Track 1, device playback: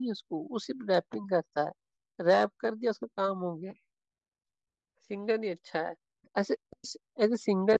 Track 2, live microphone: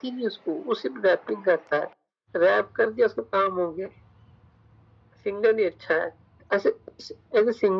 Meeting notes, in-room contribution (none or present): none